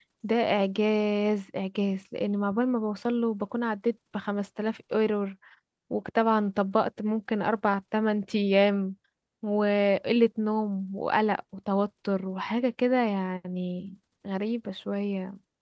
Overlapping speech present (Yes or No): No